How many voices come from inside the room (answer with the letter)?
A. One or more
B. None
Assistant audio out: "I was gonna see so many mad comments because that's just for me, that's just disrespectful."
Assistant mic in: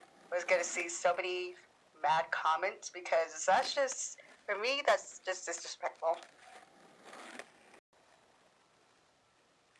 B